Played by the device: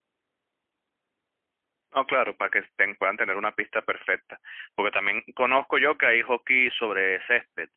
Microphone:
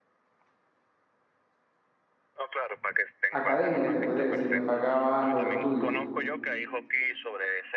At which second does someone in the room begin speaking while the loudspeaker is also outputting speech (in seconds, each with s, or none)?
3.3 s